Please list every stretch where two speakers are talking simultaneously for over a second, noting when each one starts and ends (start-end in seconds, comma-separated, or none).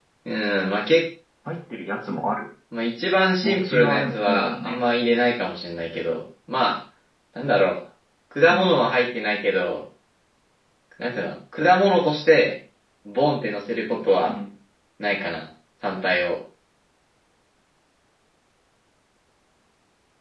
3.4-4.8